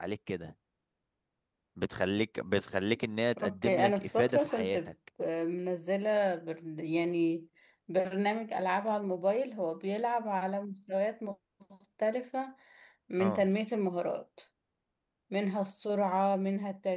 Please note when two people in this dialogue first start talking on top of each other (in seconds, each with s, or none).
3.4 s